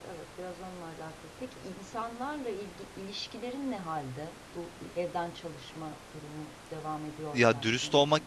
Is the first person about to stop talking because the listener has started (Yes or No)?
Yes